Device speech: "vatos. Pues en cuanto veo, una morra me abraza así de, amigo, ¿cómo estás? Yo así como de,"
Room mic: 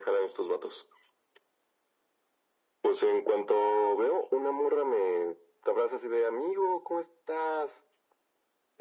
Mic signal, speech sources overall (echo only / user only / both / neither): echo only